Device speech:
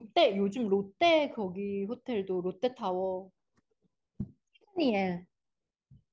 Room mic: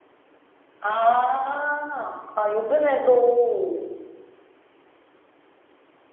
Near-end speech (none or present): present